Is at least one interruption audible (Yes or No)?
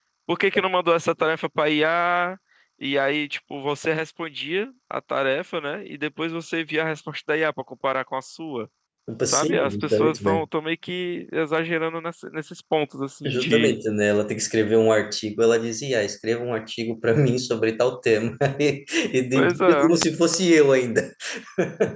Yes